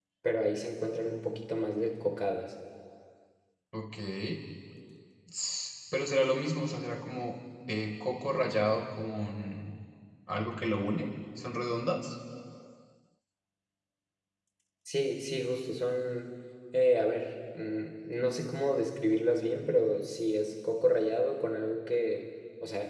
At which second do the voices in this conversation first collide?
none

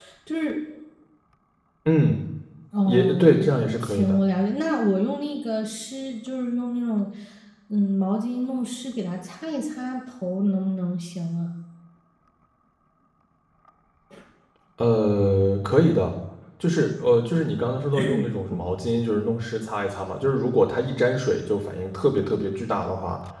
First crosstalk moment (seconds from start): 2.9 s

